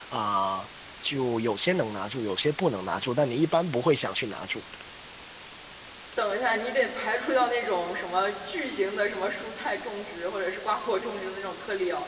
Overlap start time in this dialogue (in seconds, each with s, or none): none